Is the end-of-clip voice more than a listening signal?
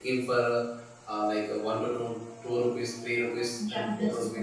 Yes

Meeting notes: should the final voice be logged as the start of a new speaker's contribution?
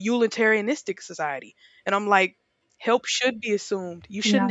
No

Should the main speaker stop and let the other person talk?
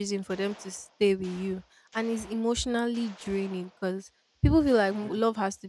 No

